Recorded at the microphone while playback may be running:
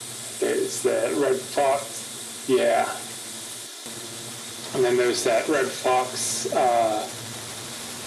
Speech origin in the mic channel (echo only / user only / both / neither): echo only